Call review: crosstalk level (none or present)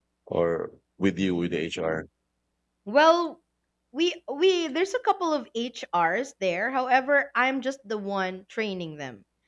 none